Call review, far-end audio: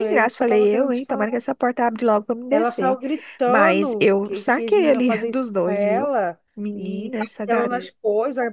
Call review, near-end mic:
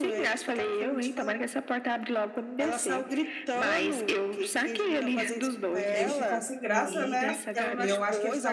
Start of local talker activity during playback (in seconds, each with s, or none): 5.9 s